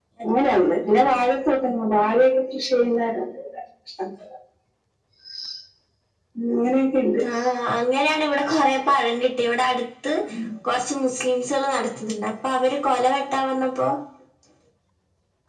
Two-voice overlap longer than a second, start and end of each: none

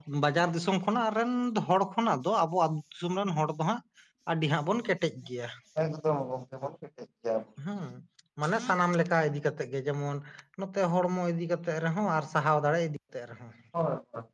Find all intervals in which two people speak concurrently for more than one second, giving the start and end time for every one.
none

